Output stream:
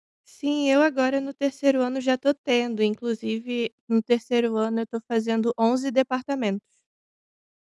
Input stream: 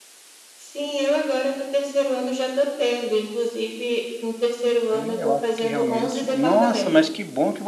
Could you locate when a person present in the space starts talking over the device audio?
5 s

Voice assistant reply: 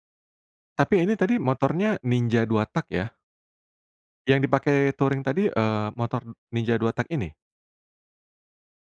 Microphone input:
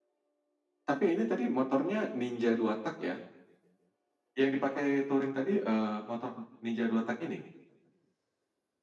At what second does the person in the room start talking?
none

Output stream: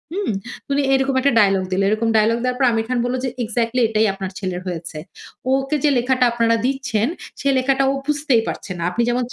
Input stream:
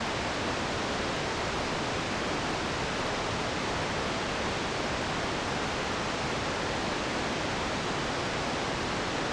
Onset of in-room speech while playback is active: none

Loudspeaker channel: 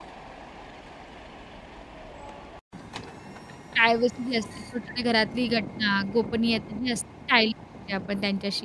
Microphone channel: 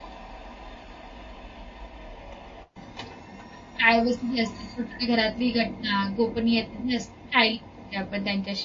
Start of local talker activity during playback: none

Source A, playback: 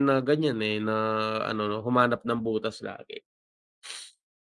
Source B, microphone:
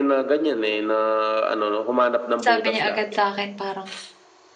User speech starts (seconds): 2 s

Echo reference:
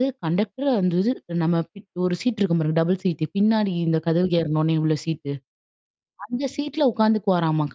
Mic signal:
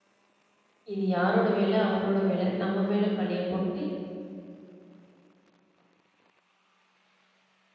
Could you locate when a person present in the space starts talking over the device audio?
1 s

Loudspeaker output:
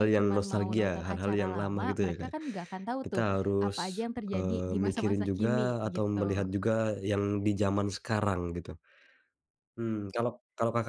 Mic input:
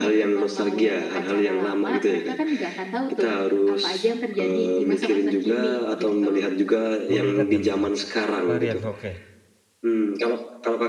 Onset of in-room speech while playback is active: 7 s

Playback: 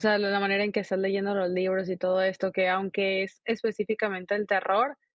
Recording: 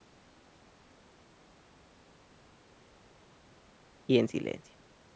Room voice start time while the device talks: 4 s

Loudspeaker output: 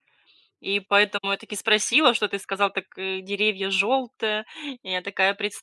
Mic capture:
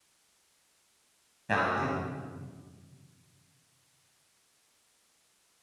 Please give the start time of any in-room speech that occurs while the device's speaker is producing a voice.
1 s

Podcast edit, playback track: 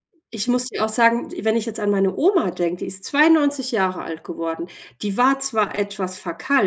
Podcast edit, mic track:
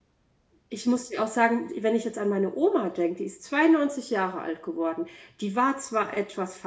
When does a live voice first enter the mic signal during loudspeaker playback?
none

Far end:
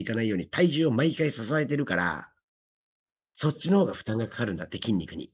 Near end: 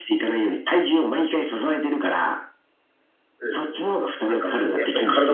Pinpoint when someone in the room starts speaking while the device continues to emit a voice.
3 s

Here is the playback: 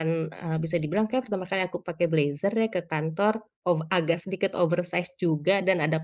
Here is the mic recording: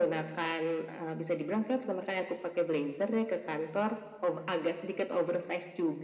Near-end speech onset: none

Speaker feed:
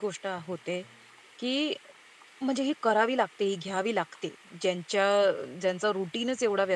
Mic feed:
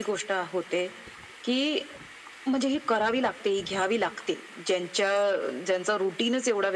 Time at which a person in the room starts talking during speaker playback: none

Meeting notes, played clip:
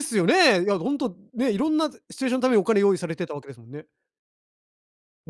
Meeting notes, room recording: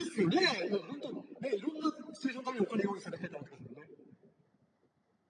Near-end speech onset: none

